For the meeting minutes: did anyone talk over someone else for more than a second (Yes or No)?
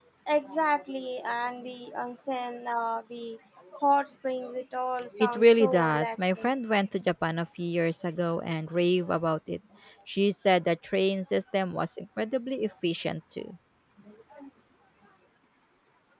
Yes